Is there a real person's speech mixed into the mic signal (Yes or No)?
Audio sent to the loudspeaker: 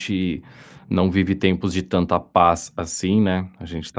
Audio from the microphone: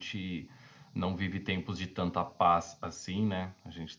No